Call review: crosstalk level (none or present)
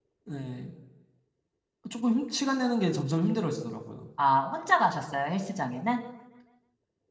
none